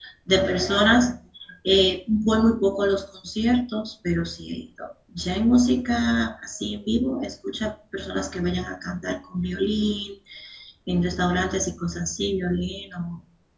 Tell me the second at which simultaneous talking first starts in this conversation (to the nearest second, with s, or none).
none